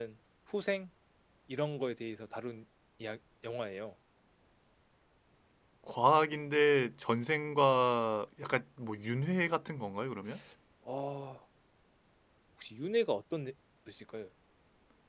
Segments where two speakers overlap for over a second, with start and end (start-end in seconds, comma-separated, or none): none